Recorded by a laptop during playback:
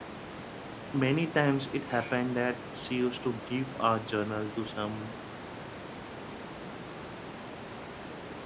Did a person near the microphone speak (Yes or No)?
Yes